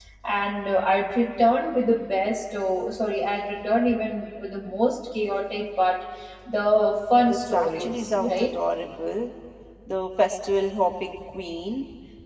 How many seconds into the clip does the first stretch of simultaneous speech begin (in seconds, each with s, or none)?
7.2 s